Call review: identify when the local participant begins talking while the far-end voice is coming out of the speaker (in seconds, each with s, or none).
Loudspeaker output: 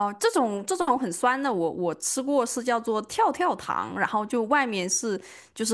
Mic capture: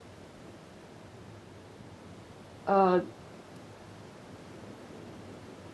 2.6 s